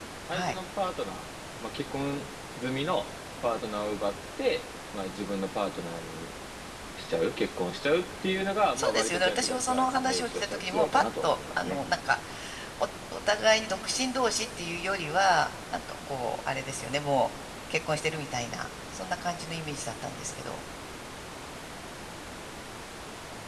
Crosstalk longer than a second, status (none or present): present